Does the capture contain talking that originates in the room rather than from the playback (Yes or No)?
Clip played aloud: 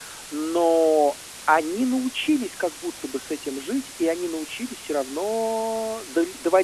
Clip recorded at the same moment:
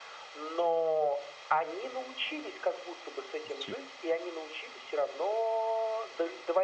Yes